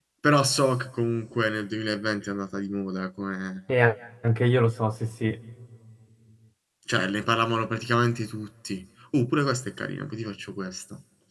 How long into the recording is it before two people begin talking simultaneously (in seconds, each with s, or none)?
none